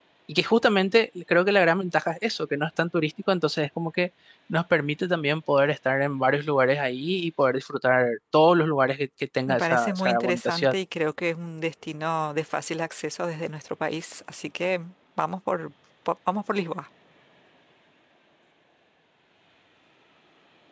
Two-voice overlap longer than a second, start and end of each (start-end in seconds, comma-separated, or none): 9.5-10.7